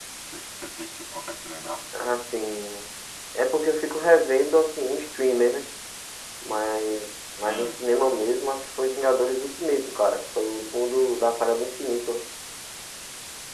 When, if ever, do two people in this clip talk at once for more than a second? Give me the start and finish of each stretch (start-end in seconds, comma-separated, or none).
none